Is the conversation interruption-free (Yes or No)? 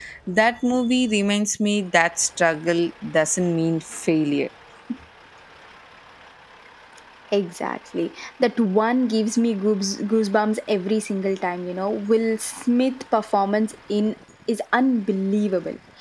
Yes